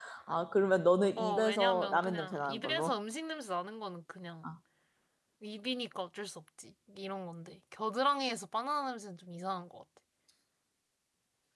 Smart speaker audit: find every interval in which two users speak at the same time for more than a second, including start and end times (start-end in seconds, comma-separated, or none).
1.2-2.9